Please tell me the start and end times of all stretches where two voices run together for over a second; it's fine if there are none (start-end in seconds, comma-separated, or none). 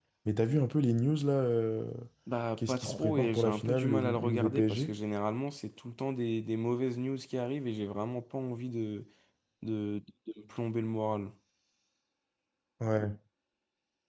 2.6-4.9